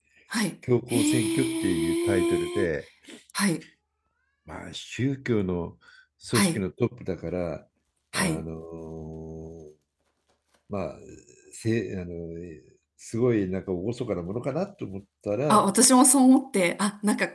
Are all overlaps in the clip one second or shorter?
No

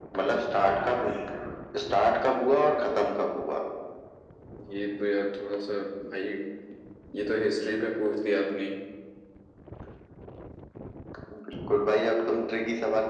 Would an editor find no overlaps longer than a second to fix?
Yes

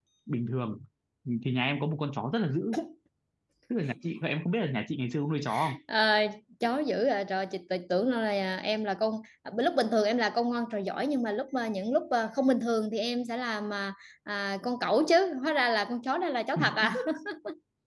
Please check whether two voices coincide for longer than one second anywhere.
No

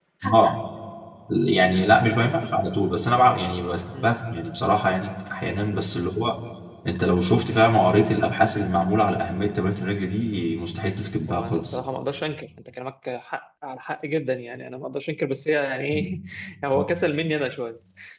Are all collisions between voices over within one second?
Yes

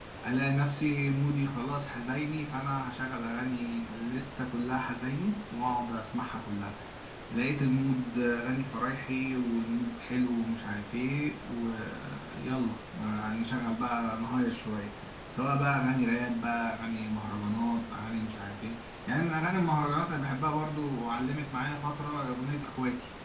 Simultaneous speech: No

